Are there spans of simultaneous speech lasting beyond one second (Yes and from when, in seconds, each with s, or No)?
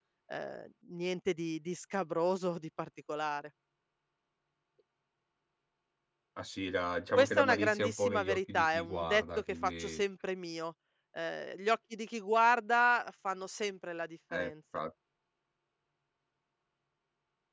Yes, from 7.1 s